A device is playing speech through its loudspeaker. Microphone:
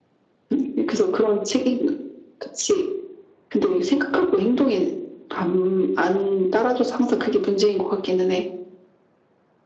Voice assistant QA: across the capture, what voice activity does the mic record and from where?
echo only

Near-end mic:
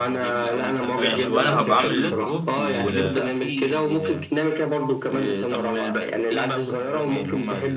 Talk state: both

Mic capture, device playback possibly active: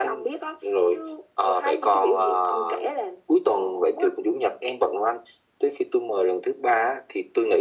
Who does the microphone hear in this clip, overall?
echo only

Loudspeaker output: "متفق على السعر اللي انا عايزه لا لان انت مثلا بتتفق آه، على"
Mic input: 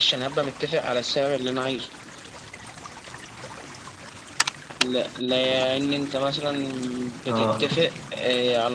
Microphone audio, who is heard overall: both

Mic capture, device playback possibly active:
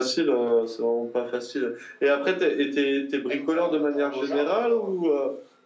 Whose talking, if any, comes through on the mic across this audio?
both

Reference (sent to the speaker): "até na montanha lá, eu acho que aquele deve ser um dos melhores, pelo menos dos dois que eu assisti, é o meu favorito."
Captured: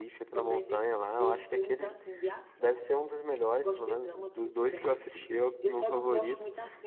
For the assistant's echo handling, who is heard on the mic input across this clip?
both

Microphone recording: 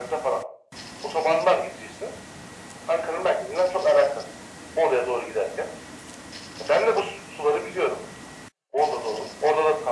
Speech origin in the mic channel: echo only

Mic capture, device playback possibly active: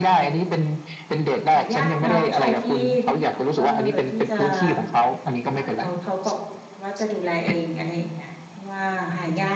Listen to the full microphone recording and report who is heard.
both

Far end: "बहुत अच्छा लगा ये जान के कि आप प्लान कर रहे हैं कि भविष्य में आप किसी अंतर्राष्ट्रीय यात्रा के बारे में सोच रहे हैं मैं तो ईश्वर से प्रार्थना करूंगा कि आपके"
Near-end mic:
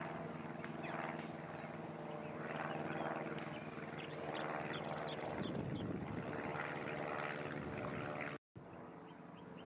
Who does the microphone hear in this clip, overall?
neither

